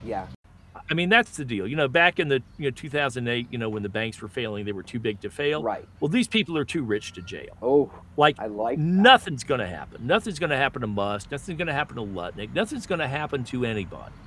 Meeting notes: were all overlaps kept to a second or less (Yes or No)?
Yes